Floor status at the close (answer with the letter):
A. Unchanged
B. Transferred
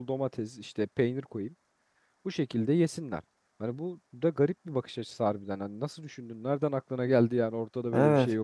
B